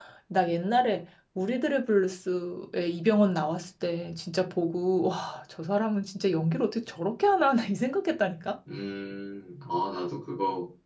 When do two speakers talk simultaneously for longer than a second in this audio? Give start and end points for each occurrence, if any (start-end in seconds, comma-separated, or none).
none